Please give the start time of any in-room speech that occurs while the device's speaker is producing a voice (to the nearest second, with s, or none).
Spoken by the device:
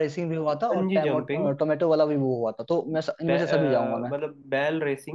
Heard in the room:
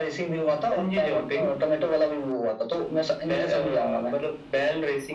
none